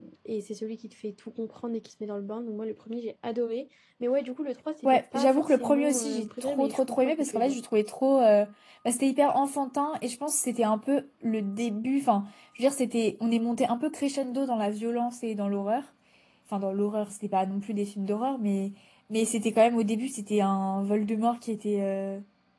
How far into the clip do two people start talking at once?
4.8 s

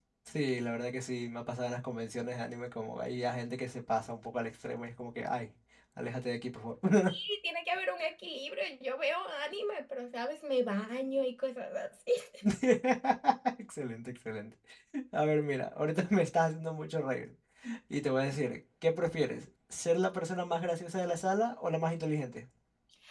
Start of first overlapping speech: none

